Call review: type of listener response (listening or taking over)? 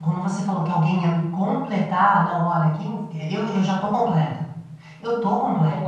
taking over